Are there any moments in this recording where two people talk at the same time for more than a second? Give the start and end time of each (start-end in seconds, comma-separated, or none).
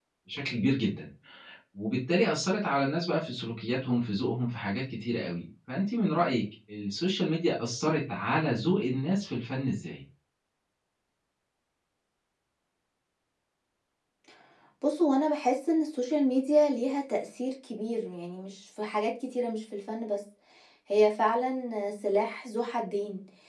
none